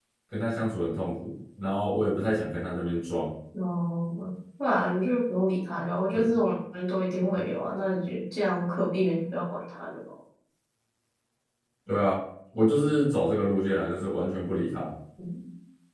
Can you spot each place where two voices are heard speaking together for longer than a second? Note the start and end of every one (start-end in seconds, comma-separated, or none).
none